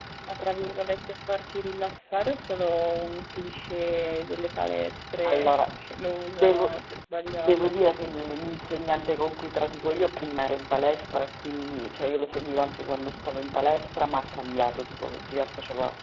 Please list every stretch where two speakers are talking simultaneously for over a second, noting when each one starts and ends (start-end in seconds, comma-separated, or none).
none